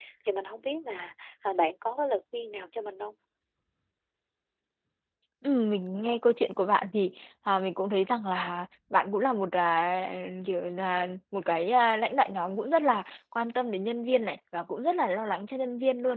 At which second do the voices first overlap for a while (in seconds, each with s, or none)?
none